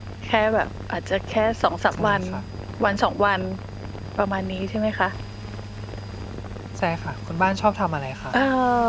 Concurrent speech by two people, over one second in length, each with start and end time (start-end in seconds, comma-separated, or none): none